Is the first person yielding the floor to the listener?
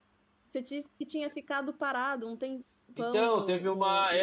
Yes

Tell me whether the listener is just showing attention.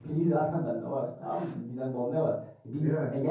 Yes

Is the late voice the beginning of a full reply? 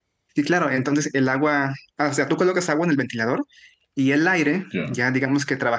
No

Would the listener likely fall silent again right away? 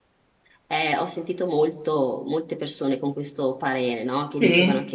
Yes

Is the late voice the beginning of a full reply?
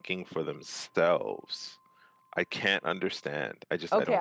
Yes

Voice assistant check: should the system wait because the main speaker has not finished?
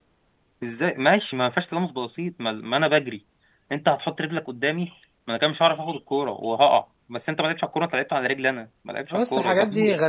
No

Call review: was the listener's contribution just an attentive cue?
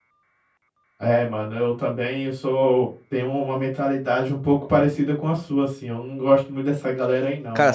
No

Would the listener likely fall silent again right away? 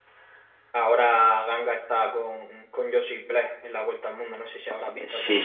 No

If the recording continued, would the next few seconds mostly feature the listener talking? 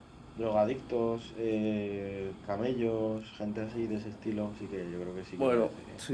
Yes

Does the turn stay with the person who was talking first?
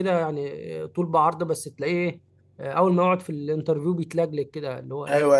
No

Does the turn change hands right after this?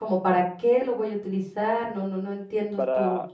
No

